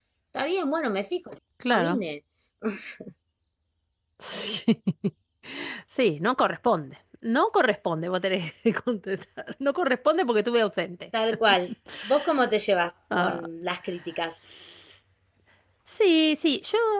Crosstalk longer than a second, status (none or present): none